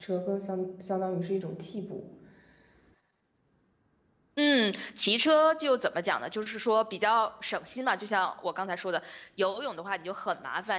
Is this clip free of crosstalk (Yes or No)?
Yes